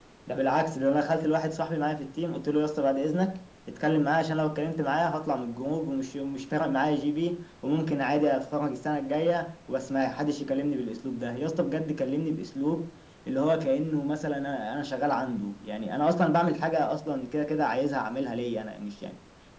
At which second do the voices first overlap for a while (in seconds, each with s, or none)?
none